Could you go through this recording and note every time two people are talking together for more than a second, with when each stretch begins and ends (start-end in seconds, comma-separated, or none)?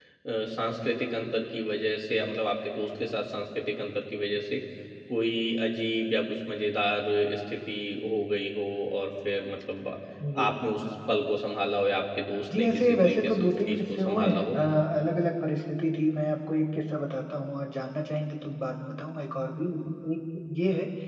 12.6-14.6